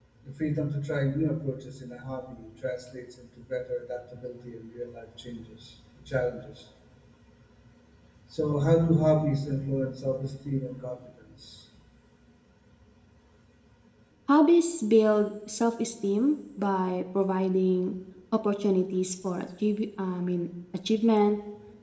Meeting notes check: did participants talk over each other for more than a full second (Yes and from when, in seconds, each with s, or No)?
No